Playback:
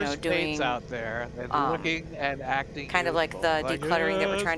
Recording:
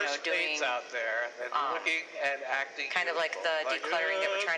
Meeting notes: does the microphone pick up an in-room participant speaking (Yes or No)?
No